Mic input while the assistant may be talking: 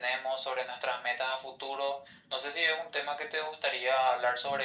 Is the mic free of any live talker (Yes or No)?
Yes